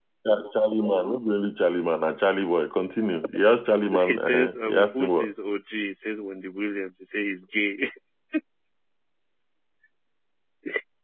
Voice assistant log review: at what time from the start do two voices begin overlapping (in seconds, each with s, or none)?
3.9 s